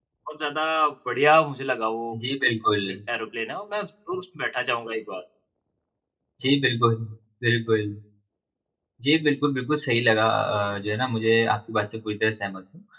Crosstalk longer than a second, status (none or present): none